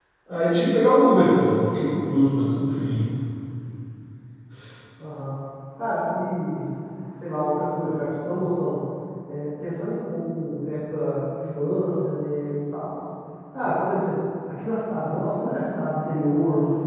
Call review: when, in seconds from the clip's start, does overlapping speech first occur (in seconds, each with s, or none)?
none